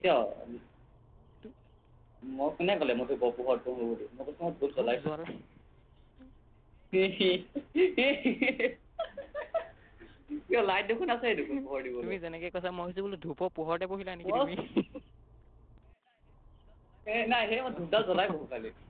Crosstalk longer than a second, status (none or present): none